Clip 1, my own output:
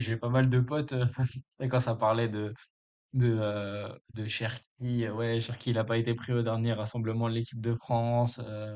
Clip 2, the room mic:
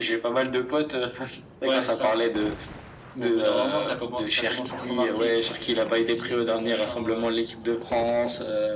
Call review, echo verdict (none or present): present